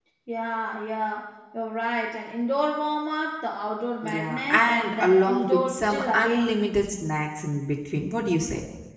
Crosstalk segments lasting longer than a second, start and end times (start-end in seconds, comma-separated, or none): 4.1-6.6